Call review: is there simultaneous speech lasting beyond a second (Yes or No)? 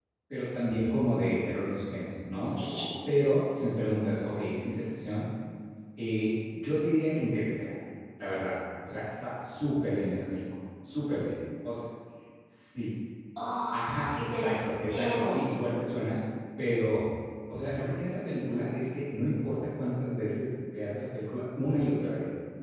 Yes